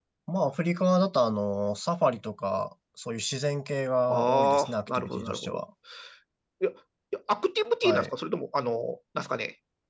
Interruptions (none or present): present